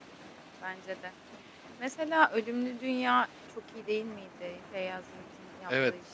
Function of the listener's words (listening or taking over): taking over